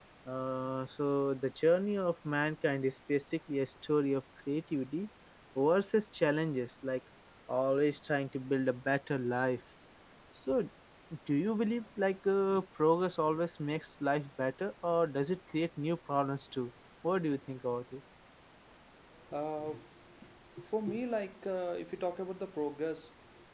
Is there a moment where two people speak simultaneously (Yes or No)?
No